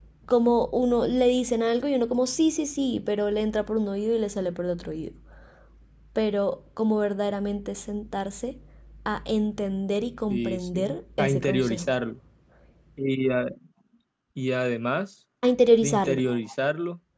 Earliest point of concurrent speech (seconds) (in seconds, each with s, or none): 10.3 s